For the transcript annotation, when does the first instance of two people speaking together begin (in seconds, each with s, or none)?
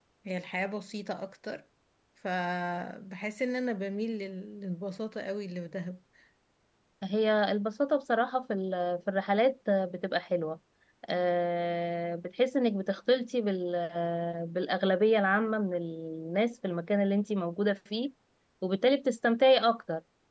none